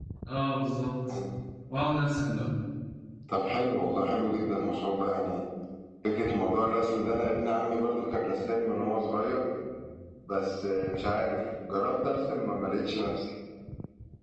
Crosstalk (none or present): none